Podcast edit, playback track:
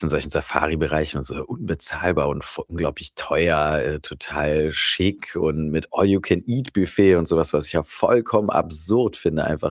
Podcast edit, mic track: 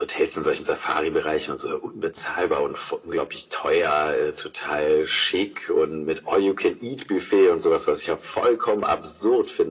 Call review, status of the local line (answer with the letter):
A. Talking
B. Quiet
B